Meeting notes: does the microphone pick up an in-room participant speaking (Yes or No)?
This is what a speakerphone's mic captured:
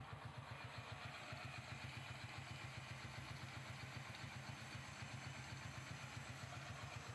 No